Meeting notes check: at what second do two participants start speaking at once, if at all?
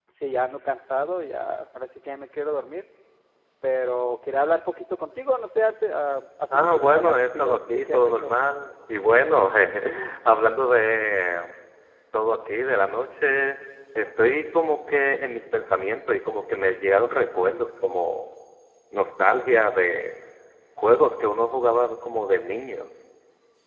6.5 s

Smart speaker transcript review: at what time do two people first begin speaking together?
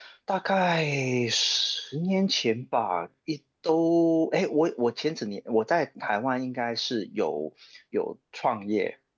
none

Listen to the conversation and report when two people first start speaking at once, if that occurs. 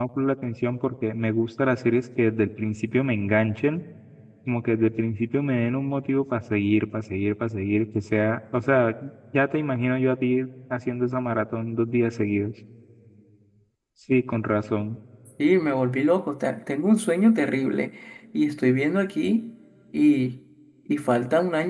none

